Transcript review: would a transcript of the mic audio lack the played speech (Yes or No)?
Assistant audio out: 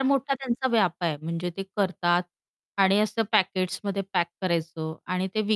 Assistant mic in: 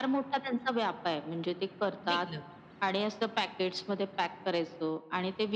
No